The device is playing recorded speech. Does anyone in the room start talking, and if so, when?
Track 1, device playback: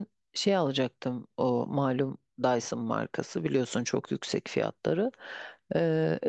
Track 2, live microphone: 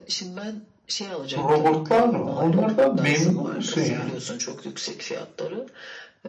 1 s

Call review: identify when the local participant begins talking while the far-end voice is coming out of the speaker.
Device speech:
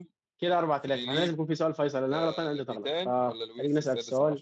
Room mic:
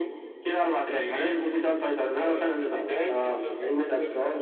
none

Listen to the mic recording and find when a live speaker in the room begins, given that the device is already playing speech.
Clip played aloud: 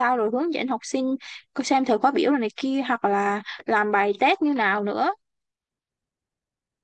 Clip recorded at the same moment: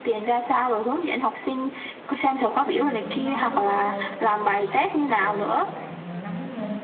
3 s

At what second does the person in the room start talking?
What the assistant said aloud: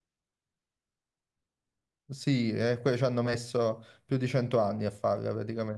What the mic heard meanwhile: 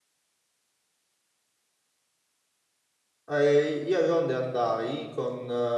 3 s

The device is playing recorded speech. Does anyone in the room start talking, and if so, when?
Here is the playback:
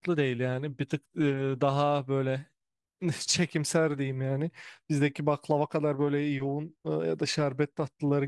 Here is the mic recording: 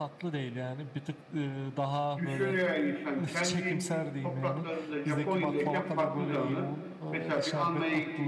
2 s

